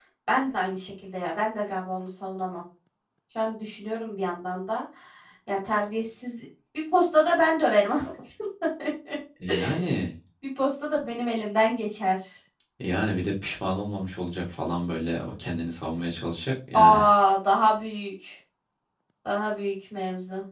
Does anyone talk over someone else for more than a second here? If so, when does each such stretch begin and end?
none

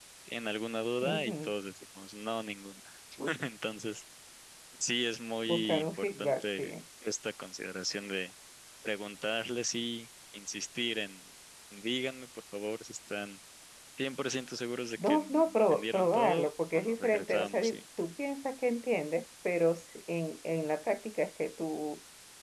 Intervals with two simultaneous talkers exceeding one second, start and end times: 5.5-6.7, 15.1-17.8

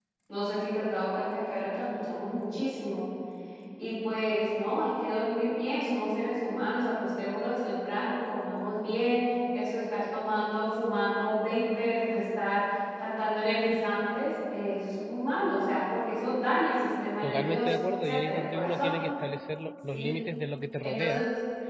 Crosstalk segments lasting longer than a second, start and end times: 17.2-18.9

